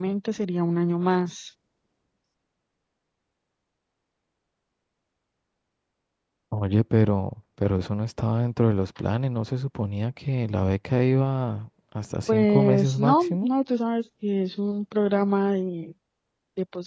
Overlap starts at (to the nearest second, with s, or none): 12 s